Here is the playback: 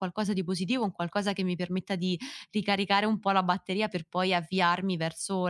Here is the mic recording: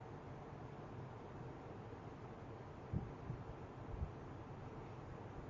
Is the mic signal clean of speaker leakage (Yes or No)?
Yes